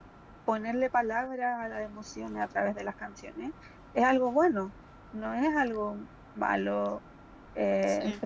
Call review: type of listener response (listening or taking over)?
listening